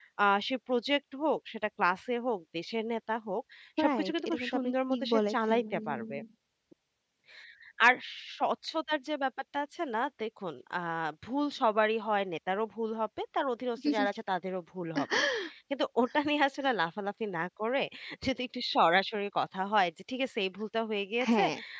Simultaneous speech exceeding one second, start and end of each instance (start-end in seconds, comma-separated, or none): 3.8-6.1